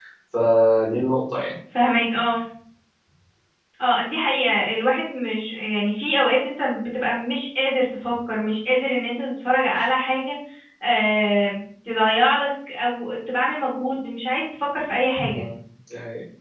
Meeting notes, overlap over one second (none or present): none